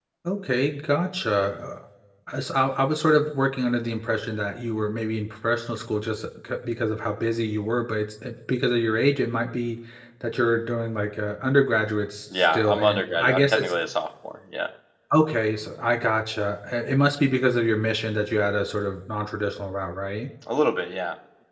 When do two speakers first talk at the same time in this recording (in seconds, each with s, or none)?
12.3 s